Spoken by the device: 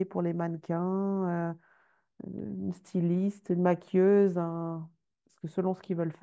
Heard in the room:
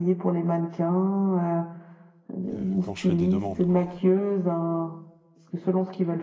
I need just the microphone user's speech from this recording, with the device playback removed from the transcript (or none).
euh, quand je fais des demandes quoi.